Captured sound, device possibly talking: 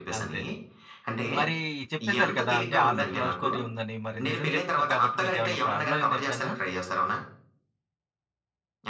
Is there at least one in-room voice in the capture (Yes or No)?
Yes